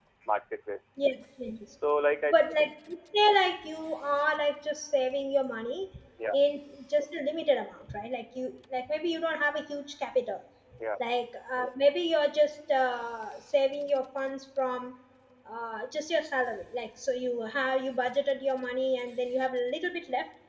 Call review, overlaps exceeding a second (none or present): none